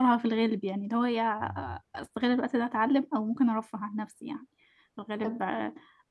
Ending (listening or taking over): listening